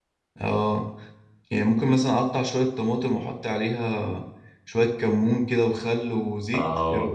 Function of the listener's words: taking over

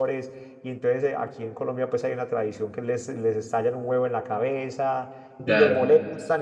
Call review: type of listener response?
listening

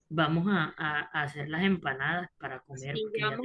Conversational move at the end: taking over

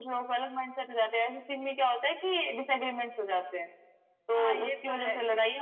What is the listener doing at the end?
taking over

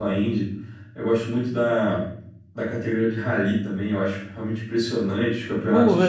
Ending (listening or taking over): taking over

